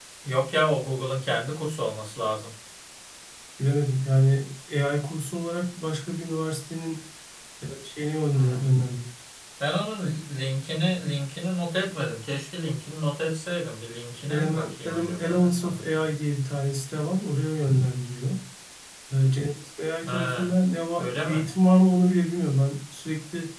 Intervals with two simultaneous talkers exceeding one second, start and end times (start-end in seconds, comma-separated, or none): 14.3-16.1